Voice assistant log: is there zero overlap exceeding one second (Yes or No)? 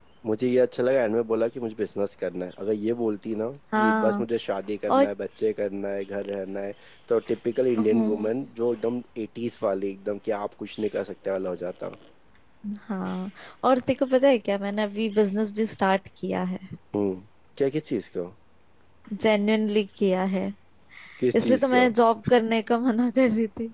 Yes